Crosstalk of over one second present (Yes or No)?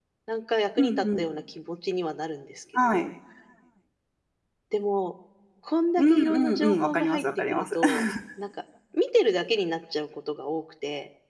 Yes